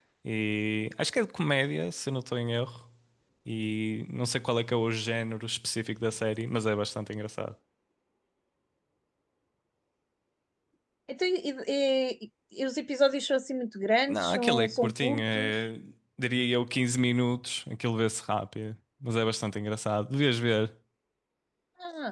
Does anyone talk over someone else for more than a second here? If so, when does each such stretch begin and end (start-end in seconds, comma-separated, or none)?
14.1-15.6